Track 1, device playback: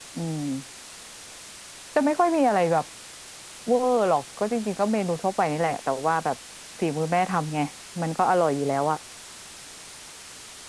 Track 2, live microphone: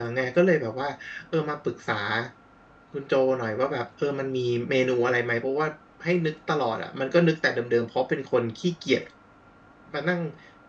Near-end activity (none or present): present